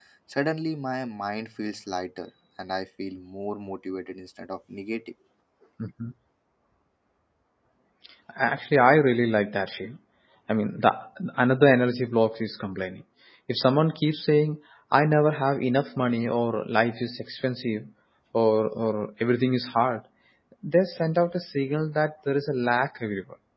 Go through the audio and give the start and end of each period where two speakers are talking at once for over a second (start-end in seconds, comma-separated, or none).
none